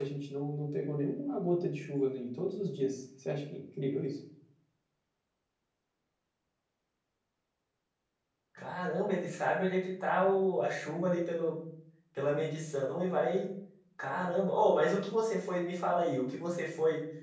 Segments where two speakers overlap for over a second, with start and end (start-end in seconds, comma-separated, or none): none